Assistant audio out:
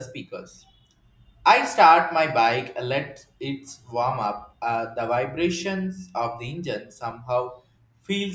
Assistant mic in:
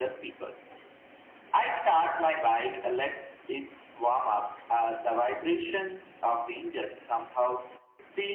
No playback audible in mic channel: No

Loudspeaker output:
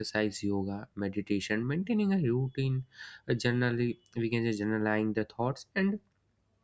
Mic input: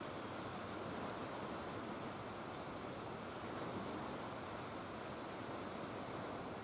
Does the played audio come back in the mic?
No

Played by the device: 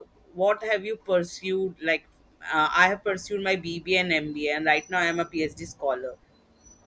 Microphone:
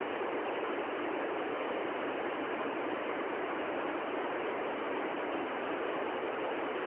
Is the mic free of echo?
Yes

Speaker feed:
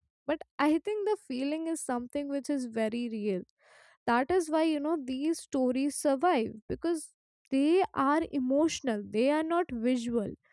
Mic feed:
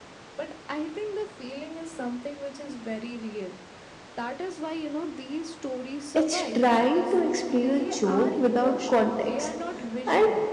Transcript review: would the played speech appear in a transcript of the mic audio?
Yes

